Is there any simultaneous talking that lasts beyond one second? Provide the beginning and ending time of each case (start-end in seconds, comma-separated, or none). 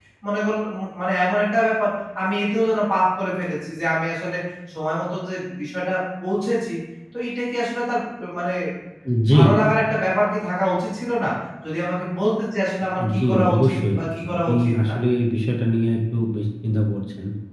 13.2-14.9